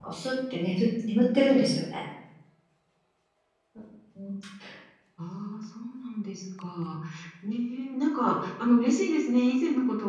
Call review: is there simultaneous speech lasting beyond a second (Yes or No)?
No